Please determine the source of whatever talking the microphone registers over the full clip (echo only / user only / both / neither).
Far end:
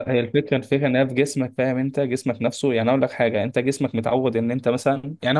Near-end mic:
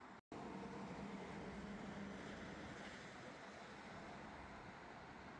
neither